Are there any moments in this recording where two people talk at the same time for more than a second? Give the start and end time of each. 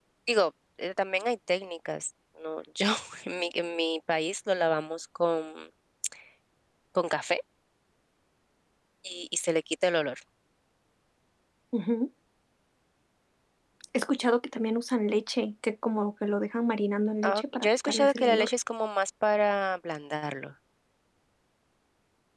17.2-18.5

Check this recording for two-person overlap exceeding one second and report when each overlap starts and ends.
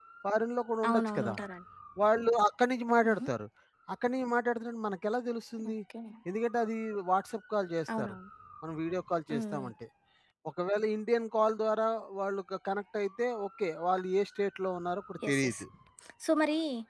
none

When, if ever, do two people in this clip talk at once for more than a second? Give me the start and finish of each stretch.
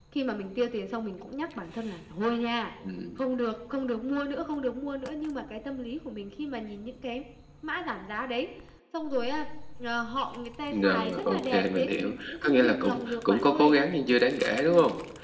10.7-13.8

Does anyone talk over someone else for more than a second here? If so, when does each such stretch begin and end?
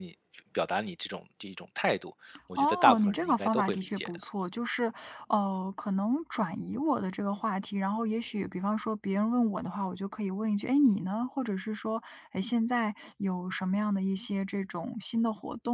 2.6-4.2

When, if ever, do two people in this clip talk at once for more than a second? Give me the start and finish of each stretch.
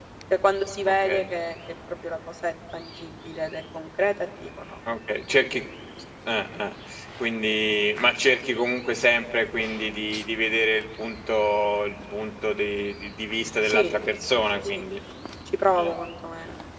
none

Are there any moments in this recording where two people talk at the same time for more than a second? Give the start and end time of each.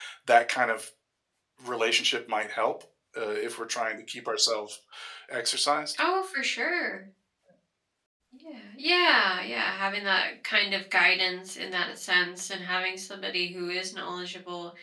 none

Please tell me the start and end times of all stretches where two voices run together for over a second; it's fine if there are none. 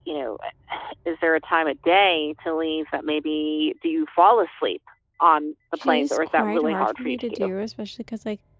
5.7-7.5

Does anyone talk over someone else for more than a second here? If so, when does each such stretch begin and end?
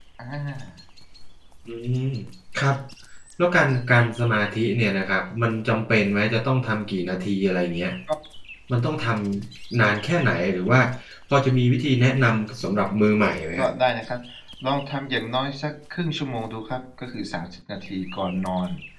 none

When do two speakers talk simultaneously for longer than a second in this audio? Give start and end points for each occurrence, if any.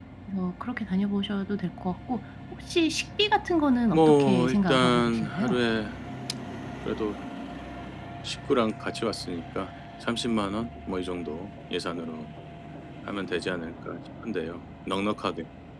3.9-5.6

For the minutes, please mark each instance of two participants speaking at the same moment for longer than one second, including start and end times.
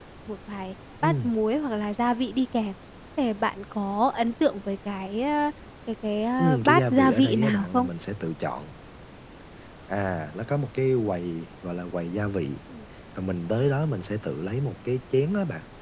6.4-7.9

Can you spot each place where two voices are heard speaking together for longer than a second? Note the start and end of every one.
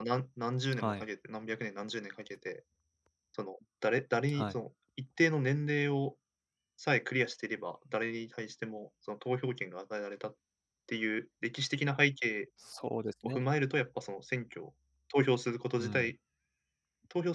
none

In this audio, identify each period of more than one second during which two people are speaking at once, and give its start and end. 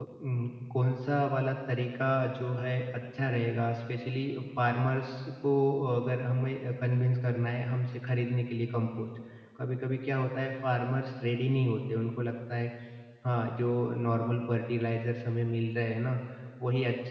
none

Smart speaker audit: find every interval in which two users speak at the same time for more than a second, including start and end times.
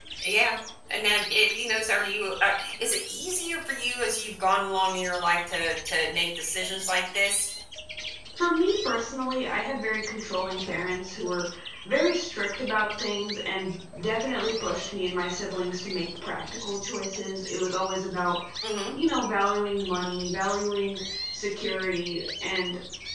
none

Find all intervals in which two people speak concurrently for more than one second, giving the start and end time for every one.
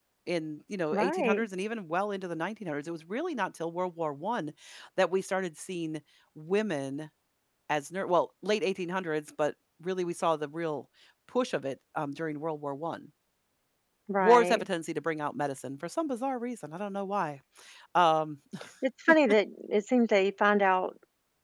none

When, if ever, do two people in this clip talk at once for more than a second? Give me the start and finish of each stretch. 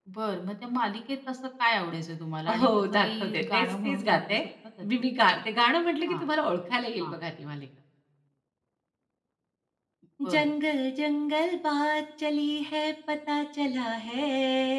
2.6-4.4

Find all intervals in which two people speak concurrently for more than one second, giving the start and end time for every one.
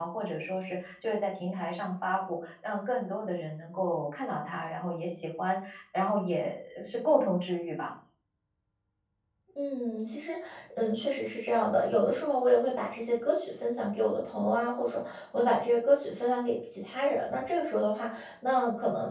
none

